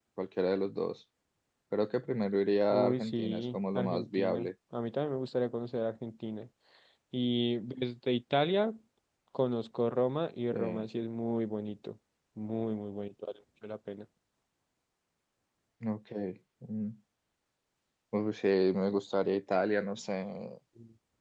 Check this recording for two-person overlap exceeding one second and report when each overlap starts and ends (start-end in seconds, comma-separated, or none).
2.7-4.5